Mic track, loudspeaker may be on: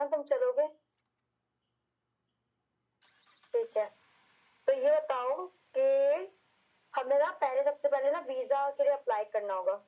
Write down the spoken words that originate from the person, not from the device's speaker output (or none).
none